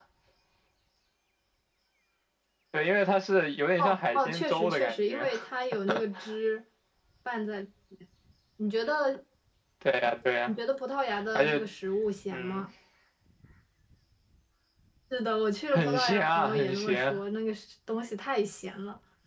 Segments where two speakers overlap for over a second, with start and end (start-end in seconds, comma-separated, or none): 3.8-5.3, 15.7-17.2